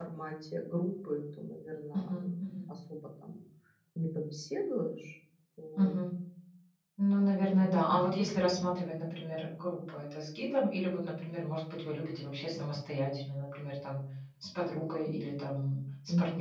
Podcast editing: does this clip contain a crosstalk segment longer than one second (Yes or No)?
No